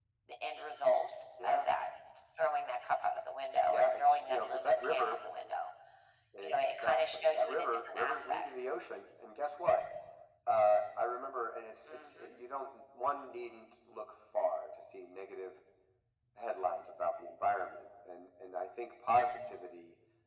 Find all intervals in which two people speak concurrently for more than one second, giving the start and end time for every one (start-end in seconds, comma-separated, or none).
3.6-5.2, 6.4-8.7